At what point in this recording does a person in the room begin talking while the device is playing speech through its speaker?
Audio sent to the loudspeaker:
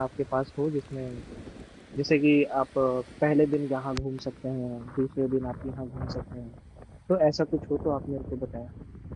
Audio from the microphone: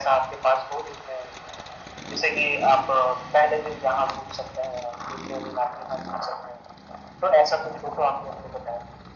none

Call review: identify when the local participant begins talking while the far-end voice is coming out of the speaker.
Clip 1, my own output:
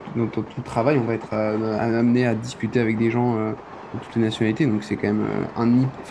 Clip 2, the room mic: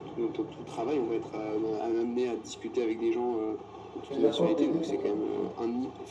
4.1 s

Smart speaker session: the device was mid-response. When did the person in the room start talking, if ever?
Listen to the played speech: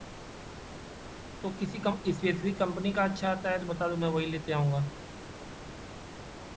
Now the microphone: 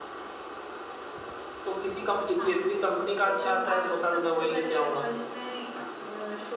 2.2 s

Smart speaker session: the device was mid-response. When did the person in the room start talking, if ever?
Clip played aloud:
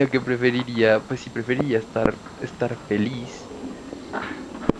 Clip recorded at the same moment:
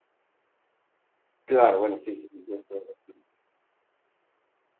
1.4 s

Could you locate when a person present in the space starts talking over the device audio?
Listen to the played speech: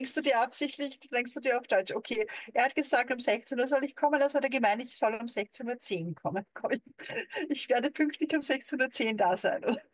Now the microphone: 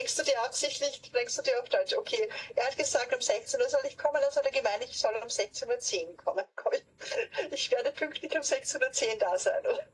none

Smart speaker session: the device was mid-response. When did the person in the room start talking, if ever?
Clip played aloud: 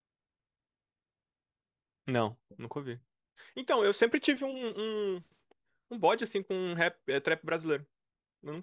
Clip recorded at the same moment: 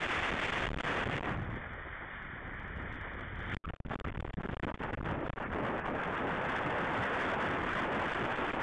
none

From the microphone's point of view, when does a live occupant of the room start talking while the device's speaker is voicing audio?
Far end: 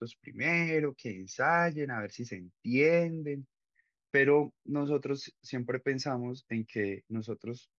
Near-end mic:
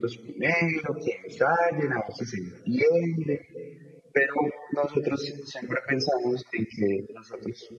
none

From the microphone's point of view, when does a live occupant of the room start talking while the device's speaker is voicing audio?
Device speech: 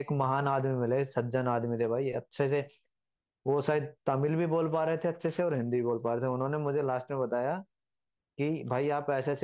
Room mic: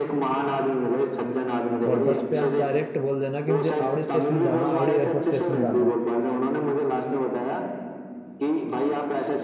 1.9 s

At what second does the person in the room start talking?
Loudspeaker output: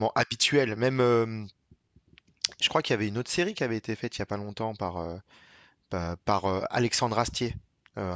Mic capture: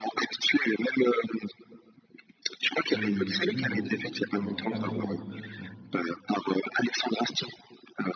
2.8 s

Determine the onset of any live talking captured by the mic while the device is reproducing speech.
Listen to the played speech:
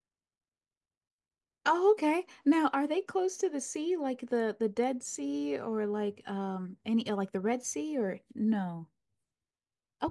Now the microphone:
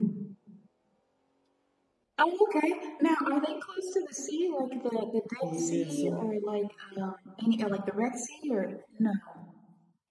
5.4 s

